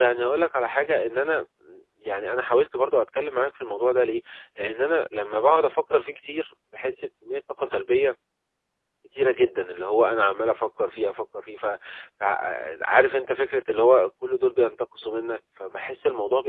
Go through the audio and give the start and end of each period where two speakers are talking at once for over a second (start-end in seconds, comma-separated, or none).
none